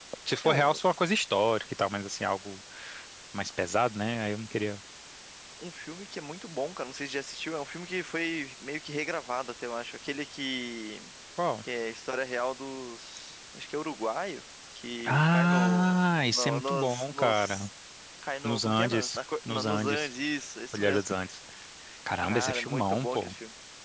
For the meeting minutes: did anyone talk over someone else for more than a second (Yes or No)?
Yes